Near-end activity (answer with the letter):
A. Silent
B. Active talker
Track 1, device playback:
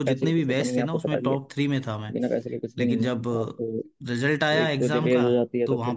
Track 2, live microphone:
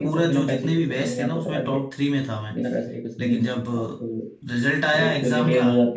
A